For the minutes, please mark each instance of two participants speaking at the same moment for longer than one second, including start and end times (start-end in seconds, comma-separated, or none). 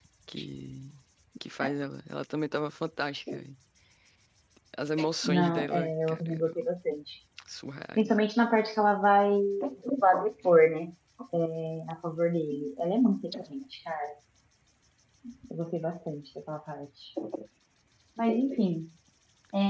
5.2-6.5